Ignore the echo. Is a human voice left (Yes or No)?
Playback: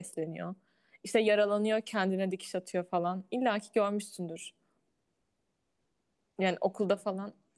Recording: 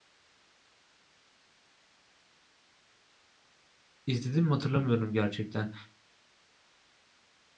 Yes